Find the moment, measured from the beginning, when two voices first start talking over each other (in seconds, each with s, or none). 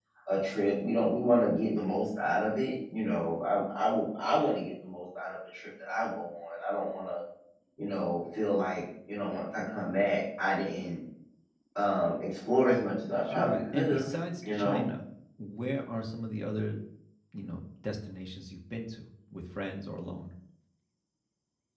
13.3 s